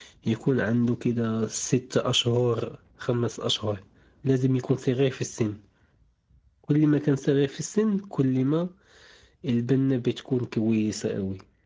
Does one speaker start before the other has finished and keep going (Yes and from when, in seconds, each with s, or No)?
No